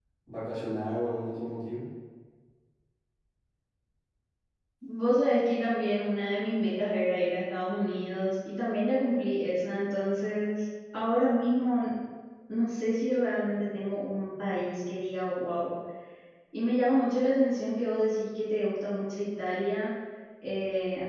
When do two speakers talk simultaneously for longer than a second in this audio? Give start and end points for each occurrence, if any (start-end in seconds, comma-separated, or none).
none